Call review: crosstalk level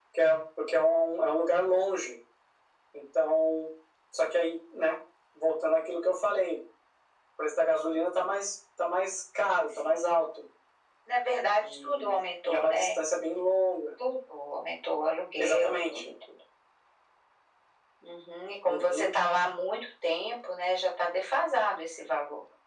present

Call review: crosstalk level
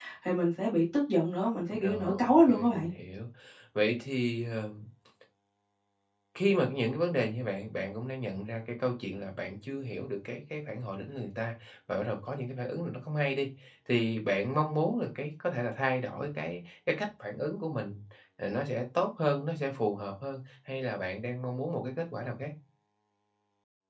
present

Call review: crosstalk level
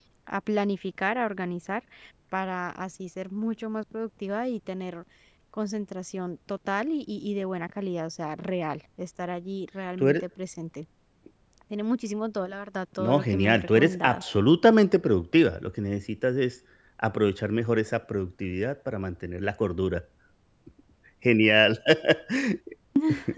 present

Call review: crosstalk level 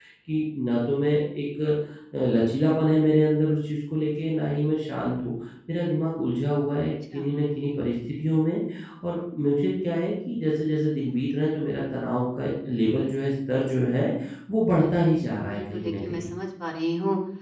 present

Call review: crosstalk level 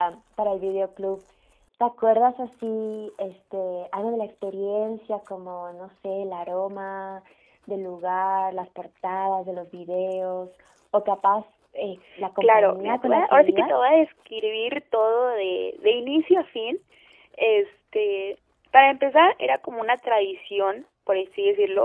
present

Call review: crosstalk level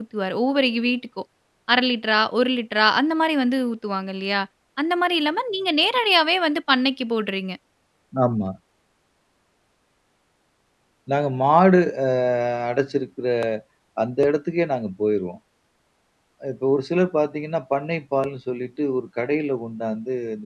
none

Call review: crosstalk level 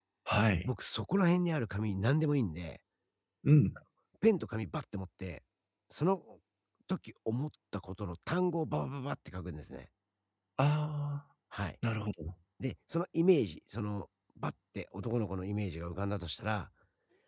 none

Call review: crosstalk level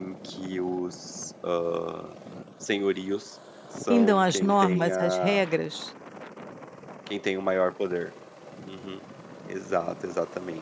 present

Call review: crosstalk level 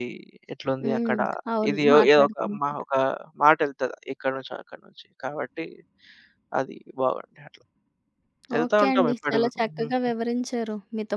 present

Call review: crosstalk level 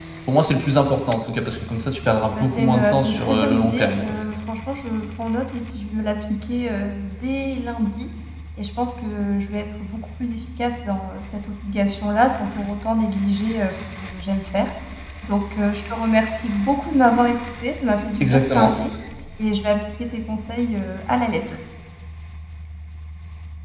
present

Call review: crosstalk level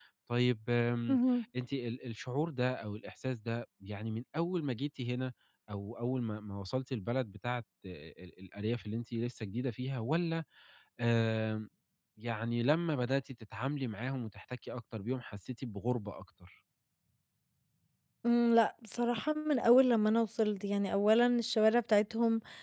none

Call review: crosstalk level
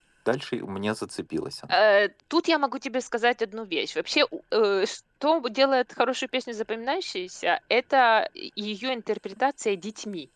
none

